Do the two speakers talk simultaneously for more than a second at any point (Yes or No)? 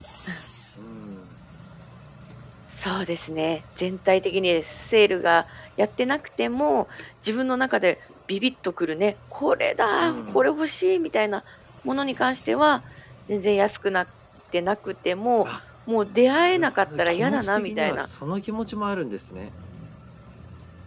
Yes